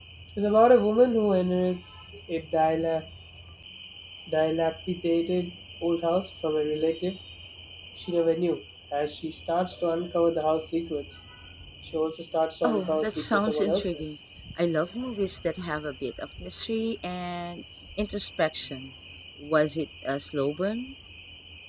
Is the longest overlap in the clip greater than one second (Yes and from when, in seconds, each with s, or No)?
Yes, from 12.6 s